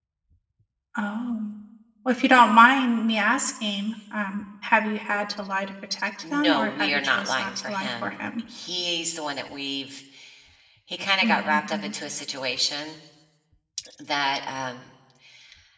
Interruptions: present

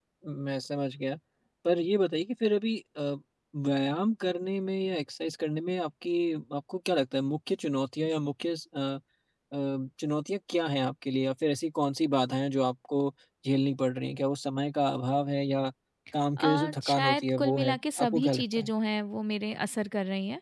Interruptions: present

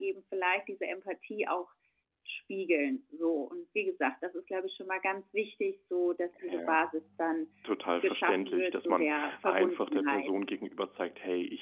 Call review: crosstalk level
present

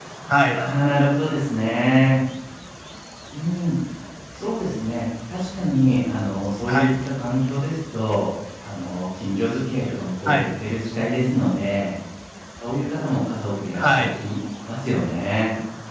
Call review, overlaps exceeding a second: none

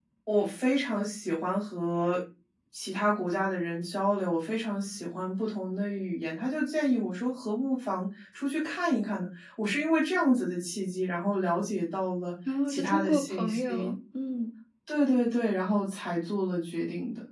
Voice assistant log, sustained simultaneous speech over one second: present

